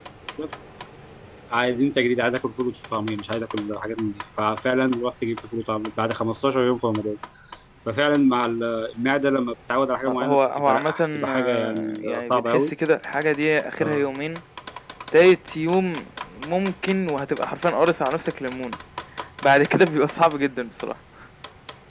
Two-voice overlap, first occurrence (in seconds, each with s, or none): 10.1 s